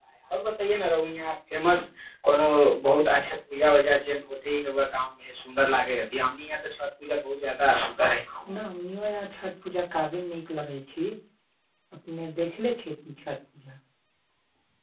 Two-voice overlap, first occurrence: none

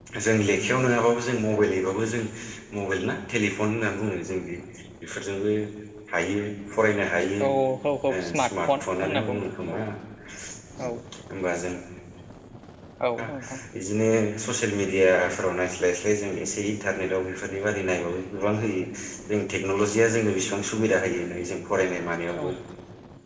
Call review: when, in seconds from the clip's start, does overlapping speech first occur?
8.2 s

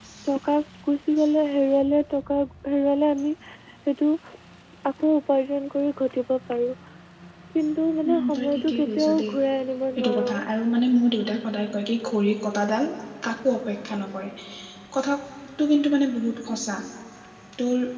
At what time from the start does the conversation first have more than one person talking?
8.1 s

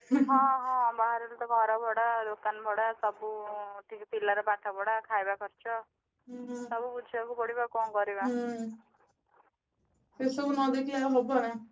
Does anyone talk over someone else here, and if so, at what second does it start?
none

